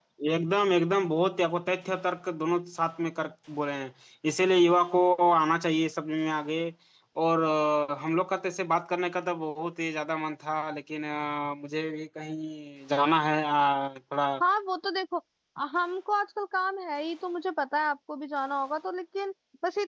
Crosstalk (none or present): none